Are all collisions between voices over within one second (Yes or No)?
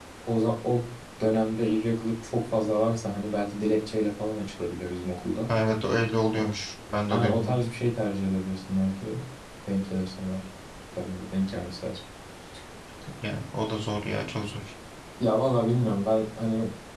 Yes